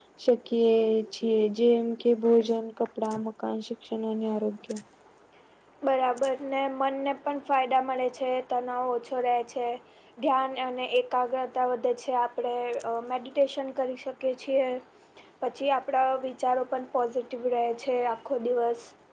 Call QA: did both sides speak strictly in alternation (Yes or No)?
Yes